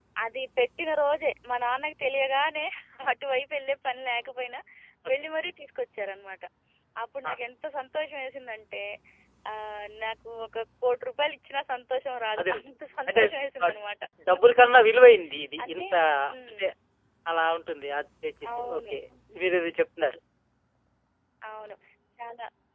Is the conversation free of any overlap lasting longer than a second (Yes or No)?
Yes